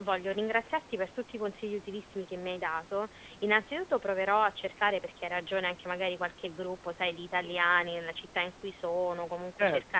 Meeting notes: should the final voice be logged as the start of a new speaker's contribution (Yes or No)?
No